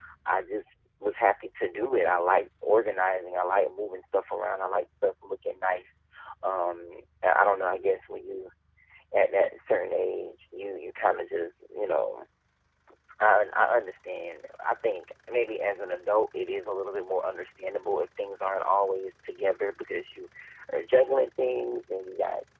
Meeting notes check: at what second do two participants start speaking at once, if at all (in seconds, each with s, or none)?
none